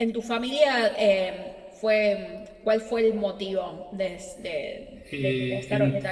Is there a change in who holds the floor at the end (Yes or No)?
Yes